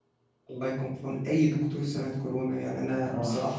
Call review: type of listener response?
listening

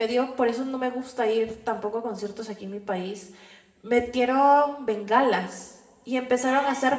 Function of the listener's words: listening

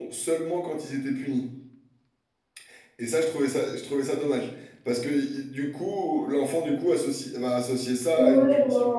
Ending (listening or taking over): taking over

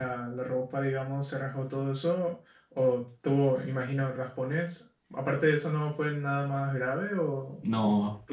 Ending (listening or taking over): taking over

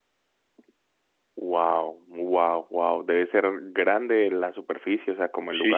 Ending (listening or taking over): taking over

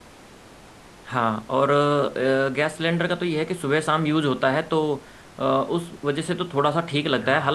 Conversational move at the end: listening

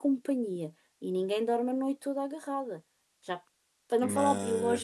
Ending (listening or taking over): listening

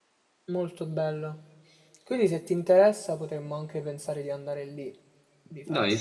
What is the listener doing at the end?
taking over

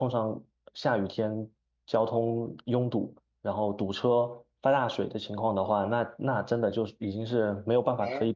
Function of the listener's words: taking over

